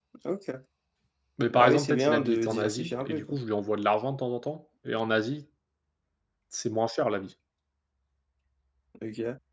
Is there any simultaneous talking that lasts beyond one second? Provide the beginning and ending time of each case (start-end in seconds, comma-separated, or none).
1.5-3.4